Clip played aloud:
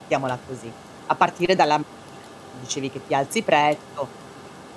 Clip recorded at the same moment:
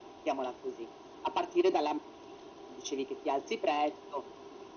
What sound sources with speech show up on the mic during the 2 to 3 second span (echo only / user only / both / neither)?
echo only